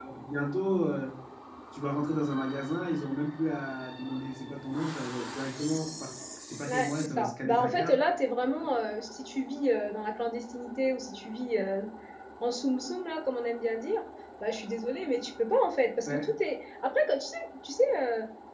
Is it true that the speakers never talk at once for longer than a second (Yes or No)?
No